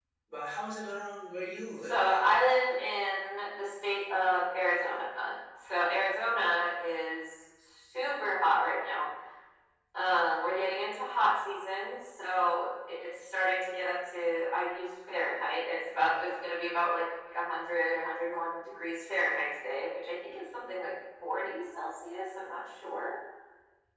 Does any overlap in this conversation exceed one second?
No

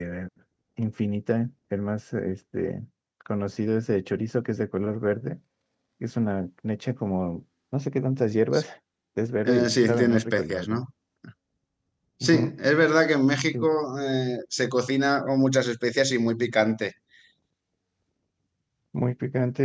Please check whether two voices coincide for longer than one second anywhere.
Yes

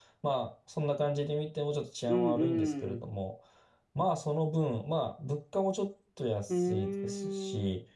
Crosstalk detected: Yes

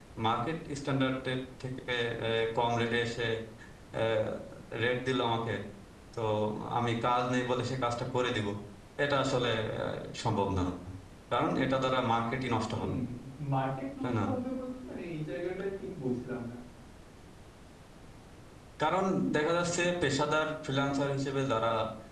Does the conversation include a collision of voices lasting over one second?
No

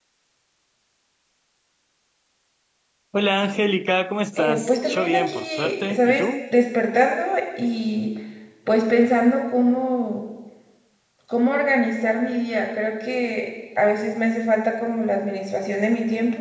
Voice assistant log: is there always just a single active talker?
No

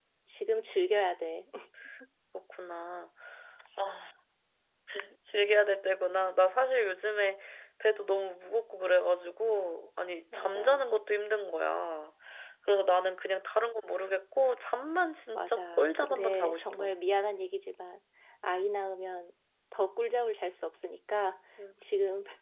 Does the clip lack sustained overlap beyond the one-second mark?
No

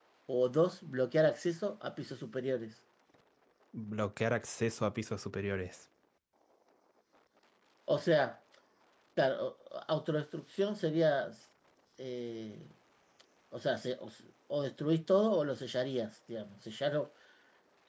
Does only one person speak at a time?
Yes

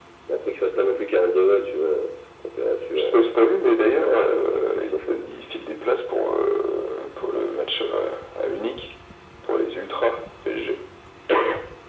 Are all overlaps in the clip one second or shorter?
No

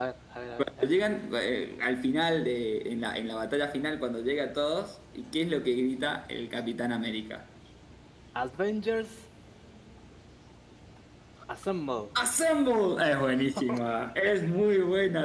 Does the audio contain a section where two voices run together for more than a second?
No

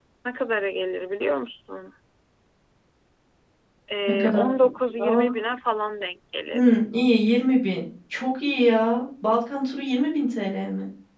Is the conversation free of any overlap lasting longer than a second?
Yes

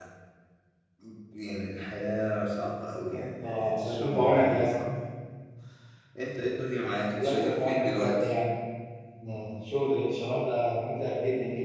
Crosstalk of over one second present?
Yes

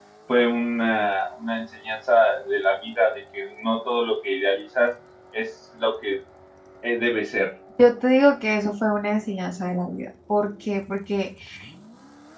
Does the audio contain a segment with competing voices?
No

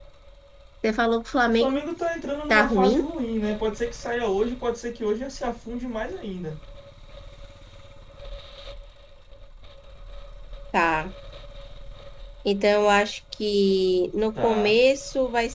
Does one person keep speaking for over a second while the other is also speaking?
No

